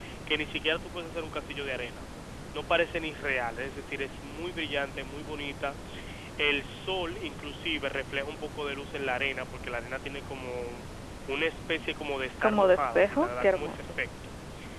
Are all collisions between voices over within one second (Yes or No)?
No